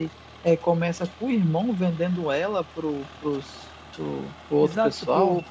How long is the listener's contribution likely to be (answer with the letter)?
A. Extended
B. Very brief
A